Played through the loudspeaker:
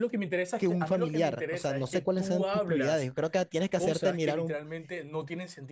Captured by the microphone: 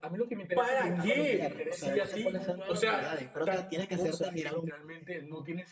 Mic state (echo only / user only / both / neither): both